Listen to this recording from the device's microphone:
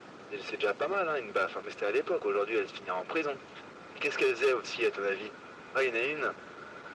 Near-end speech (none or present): none